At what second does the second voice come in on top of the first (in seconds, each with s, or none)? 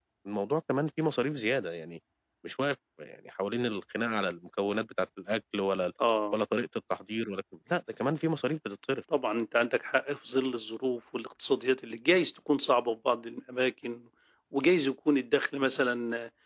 none